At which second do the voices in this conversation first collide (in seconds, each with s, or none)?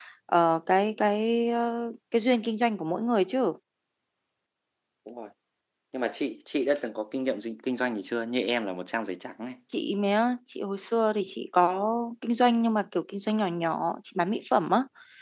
none